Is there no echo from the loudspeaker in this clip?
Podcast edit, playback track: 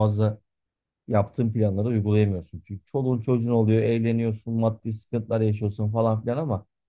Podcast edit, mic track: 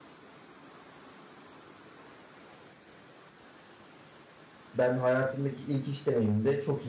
Yes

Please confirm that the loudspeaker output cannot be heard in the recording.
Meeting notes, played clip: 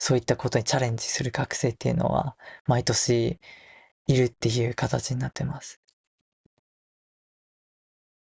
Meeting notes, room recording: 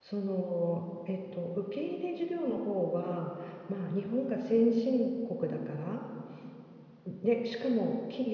Yes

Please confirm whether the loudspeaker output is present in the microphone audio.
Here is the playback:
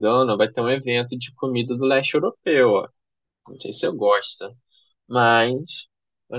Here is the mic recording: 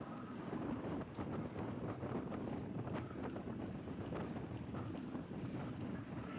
No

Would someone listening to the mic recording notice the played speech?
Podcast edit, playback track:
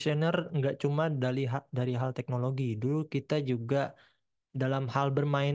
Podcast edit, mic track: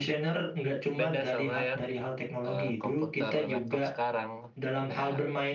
Yes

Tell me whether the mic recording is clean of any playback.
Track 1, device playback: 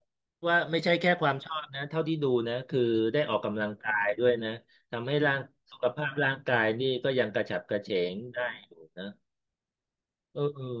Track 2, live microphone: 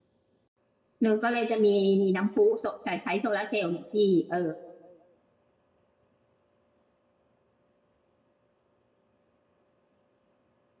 Yes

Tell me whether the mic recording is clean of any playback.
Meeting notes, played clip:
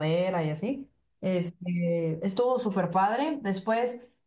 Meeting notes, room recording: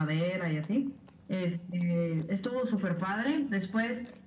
No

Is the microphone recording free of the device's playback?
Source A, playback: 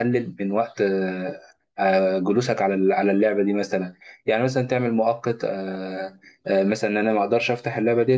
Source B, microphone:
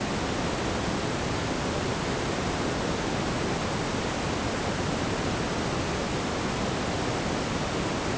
Yes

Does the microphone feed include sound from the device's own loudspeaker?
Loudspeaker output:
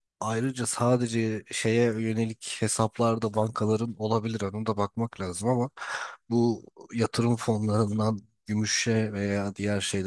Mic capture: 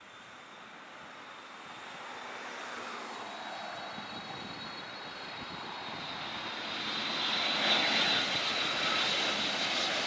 No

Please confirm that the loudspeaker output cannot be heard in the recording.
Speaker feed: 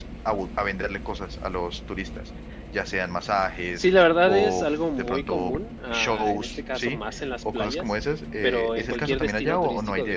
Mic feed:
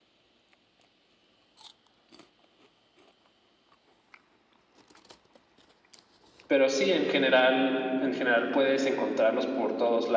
Yes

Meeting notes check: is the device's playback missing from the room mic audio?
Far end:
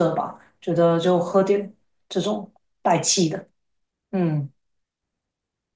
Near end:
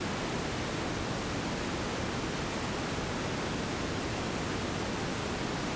Yes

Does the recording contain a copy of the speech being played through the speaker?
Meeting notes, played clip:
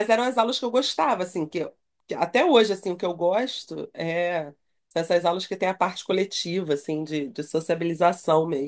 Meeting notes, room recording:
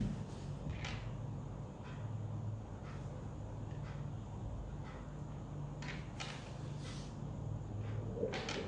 No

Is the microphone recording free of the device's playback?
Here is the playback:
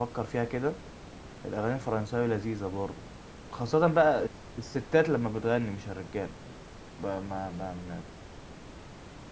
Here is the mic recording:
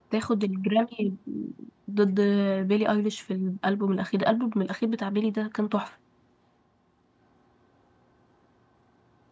Yes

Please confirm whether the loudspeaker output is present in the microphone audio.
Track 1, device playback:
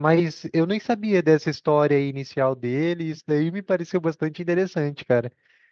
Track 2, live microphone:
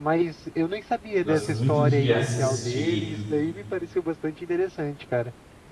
Yes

